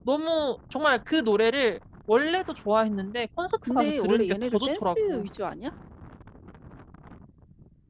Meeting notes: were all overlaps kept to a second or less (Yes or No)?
No